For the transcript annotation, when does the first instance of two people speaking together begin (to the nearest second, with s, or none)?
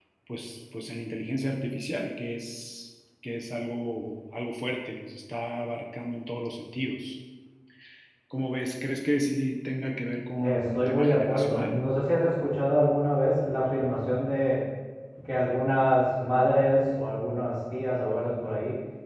10 s